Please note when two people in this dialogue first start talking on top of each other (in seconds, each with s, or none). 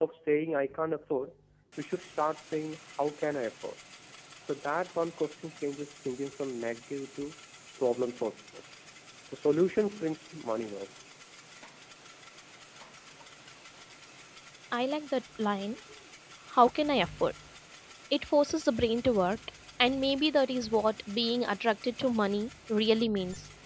none